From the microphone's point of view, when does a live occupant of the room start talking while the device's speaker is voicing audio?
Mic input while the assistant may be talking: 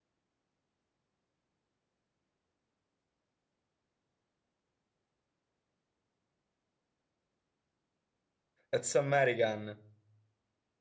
9 s

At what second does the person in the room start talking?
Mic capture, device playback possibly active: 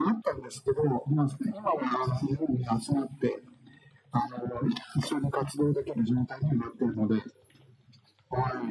none

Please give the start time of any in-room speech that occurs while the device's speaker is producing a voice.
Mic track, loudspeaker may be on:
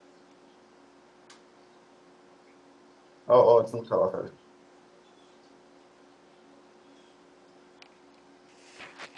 3 s

